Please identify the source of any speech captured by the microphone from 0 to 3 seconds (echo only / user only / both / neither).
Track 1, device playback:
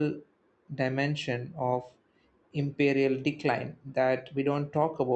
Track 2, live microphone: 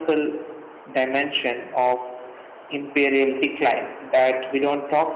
echo only